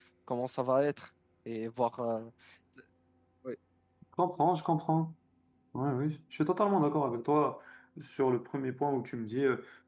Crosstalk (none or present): none